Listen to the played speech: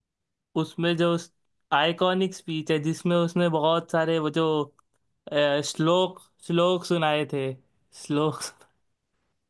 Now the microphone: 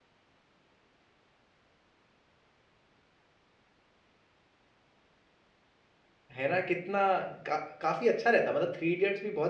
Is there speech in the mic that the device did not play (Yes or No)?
Yes